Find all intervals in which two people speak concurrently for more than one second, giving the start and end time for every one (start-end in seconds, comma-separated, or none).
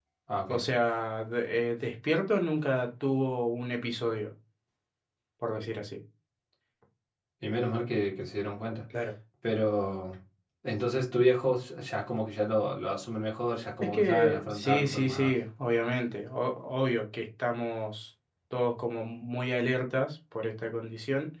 13.8-15.3